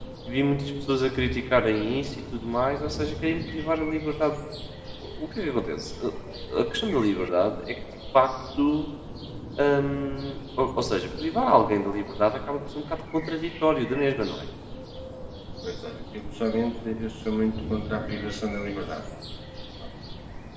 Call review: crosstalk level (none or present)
none